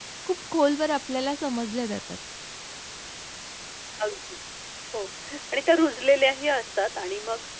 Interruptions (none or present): none